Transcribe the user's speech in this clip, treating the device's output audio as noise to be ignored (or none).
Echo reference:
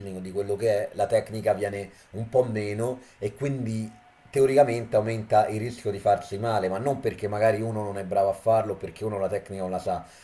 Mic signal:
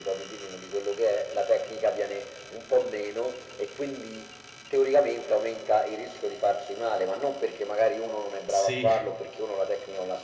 sì,